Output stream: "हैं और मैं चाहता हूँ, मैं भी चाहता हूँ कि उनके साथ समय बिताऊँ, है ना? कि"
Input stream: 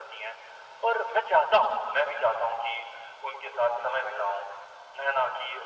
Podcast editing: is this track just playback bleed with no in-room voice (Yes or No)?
Yes